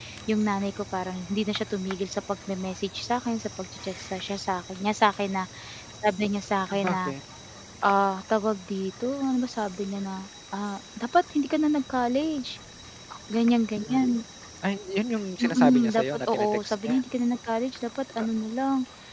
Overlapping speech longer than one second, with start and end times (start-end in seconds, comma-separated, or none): 15.4-17.0